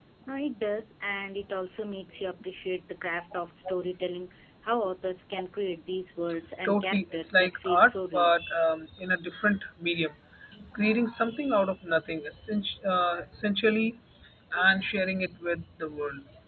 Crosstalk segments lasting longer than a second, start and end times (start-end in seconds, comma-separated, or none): 6.6-8.3